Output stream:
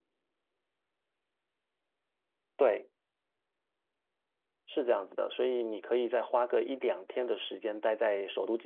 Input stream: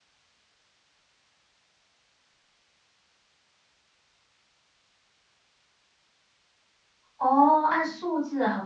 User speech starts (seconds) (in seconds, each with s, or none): 7.2 s